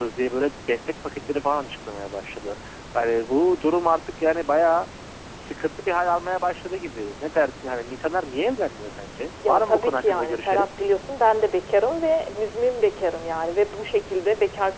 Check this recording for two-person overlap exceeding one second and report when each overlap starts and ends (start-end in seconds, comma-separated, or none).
9.5-10.7